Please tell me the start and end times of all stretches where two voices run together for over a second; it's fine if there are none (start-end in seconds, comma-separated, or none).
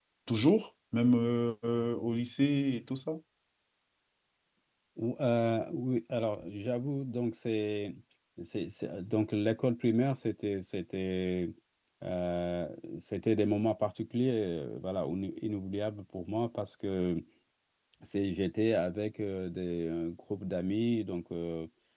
none